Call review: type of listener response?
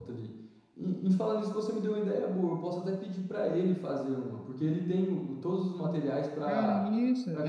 taking over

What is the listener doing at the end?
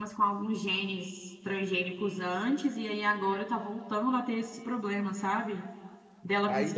taking over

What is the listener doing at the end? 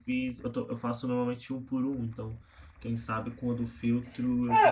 taking over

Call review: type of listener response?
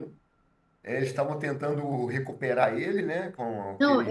taking over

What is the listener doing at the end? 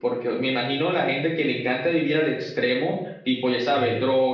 listening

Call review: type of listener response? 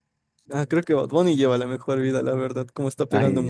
taking over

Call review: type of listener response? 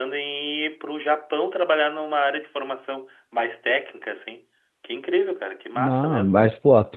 taking over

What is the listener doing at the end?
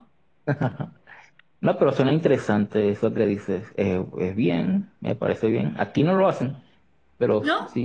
listening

